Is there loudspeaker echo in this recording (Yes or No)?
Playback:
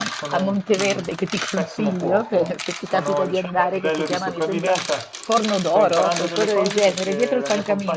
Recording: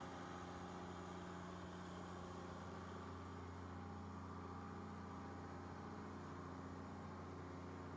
No